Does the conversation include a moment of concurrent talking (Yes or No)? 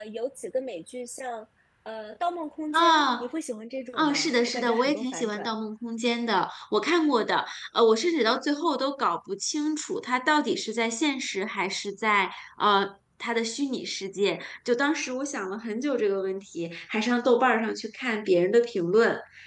Yes